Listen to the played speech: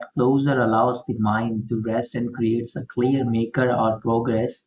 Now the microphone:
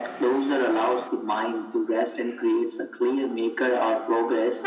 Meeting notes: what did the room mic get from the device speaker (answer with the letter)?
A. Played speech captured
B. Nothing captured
A